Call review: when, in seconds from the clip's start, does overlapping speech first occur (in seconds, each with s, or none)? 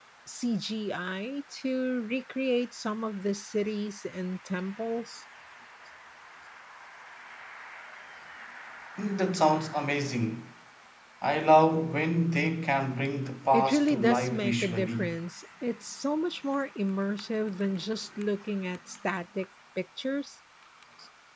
13.5 s